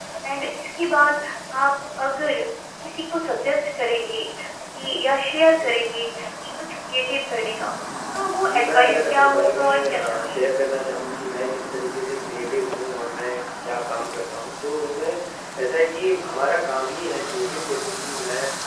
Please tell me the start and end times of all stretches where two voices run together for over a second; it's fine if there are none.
8.4-10.3

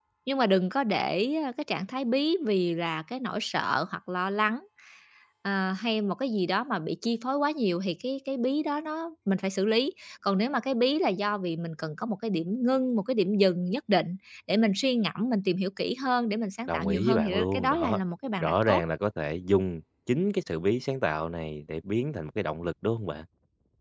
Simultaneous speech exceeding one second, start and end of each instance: 16.7-18.0

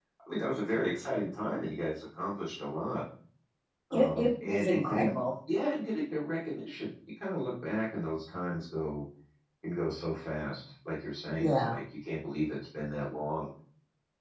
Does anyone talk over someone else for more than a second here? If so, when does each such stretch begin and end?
3.9-5.1

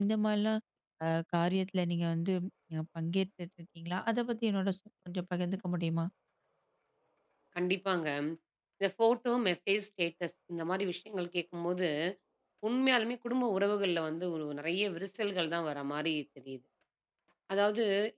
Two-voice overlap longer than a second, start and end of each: none

